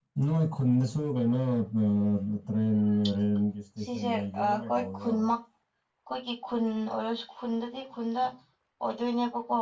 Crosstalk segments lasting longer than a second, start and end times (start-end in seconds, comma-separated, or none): 3.8-5.2